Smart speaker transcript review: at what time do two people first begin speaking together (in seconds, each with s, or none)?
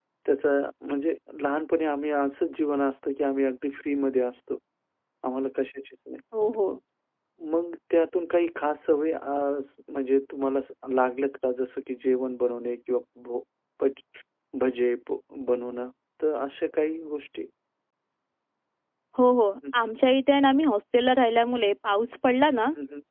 none